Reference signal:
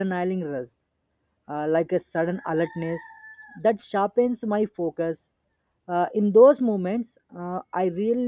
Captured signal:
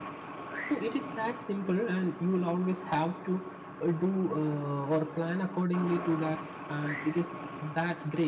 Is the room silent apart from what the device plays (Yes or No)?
No